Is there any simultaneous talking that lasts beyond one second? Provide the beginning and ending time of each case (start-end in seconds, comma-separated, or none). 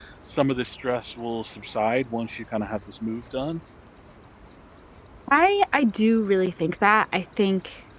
none